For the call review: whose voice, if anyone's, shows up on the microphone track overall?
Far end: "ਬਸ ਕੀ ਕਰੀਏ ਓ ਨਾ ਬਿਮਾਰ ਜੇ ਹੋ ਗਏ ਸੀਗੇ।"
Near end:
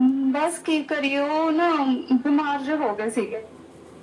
echo only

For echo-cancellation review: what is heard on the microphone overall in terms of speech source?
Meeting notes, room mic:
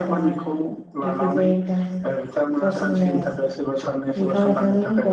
both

